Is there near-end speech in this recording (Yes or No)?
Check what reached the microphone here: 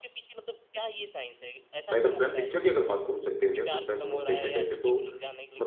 Yes